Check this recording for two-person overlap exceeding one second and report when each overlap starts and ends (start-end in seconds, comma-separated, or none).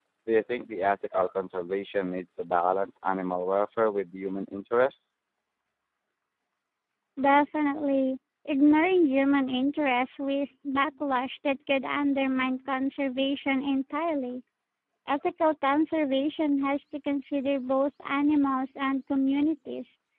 none